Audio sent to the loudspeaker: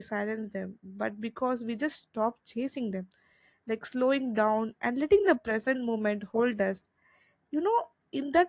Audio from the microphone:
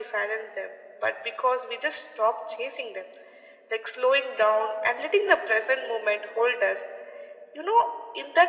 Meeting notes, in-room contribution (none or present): none